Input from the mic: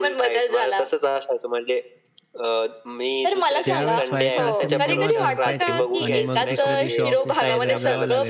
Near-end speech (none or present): present